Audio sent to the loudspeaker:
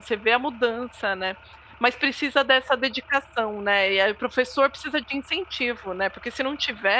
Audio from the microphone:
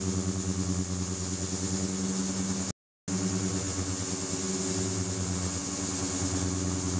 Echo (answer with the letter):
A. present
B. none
B